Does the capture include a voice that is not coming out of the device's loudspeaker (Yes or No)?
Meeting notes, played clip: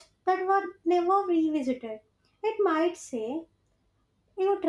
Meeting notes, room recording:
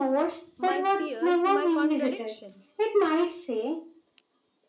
Yes